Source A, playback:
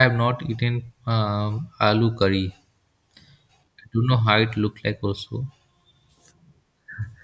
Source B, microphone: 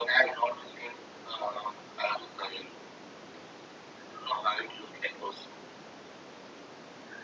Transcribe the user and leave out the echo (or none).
none